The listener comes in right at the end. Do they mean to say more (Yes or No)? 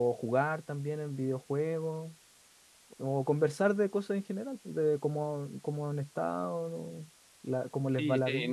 Yes